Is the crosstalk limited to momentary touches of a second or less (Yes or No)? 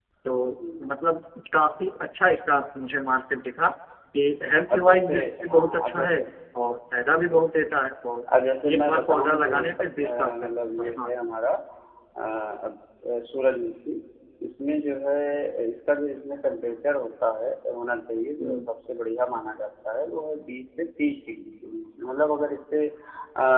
No